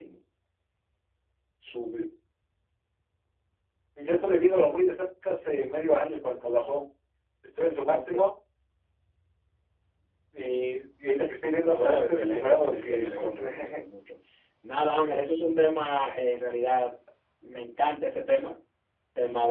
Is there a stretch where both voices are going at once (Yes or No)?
Yes